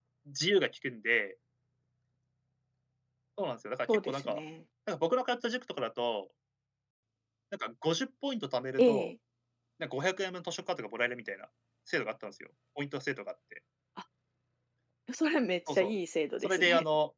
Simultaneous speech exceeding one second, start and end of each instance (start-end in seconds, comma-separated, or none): none